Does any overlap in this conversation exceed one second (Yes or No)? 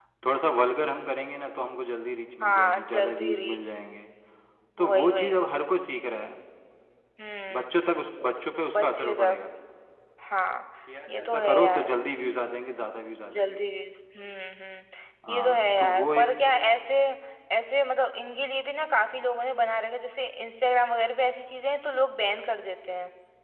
Yes